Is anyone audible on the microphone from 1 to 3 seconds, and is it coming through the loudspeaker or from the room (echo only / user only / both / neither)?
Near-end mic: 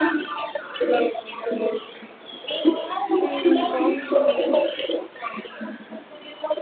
echo only